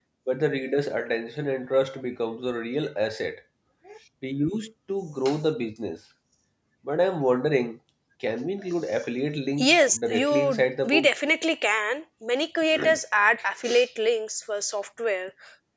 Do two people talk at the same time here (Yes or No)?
Yes